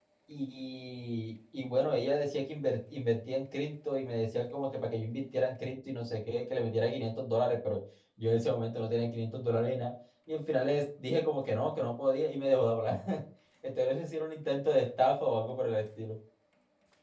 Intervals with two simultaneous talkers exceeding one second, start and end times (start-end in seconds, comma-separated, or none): none